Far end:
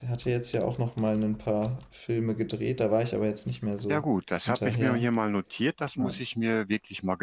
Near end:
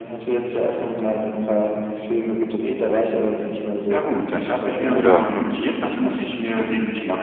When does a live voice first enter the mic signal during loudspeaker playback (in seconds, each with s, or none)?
4.9 s